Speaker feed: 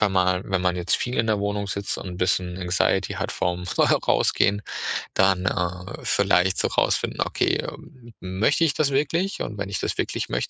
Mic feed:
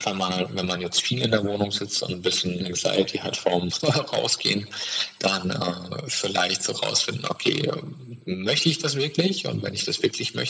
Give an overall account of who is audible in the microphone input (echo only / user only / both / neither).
echo only